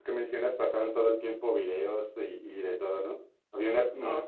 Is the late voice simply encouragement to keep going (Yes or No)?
Yes